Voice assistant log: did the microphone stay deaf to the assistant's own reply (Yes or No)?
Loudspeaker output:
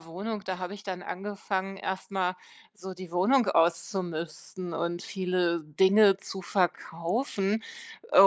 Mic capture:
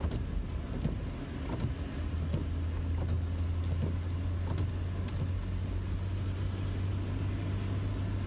Yes